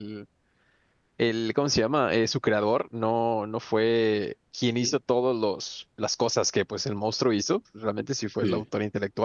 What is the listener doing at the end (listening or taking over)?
listening